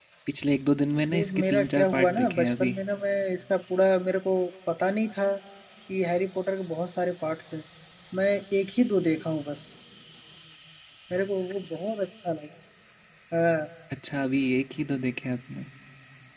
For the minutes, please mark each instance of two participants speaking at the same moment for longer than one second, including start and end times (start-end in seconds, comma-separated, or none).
1.1-2.7